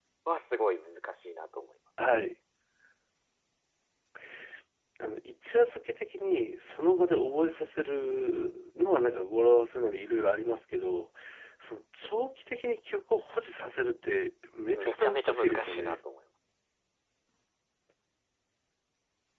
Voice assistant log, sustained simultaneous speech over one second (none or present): present